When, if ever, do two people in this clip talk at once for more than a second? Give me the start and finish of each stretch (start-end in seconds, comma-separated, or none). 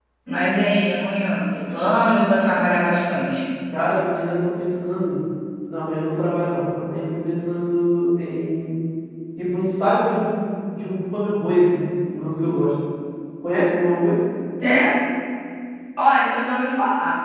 none